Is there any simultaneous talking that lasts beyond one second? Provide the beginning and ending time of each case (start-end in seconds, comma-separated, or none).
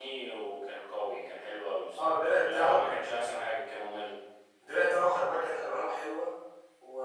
2.0-3.2